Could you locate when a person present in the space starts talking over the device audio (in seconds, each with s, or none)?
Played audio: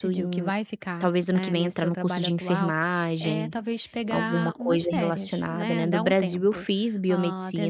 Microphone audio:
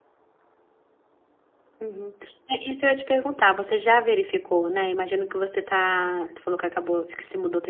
1.8 s